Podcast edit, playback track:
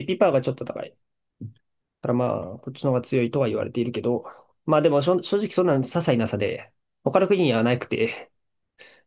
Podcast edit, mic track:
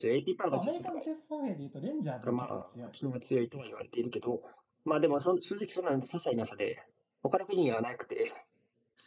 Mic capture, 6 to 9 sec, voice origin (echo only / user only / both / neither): echo only